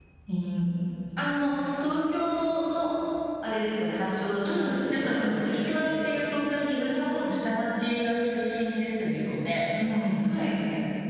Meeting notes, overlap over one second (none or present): present